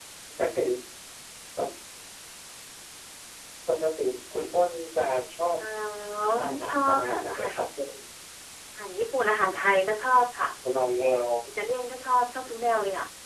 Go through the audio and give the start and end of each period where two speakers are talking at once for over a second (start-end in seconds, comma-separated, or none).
6.4-7.7